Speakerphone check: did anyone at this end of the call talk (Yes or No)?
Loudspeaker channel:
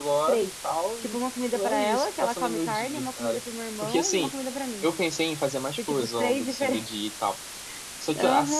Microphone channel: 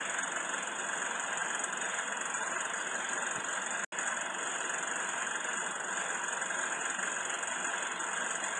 No